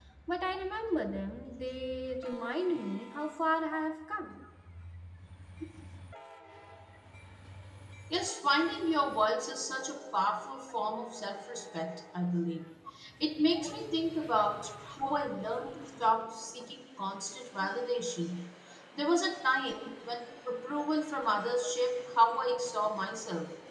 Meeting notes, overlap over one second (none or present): none